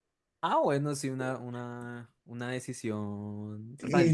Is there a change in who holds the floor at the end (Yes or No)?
Yes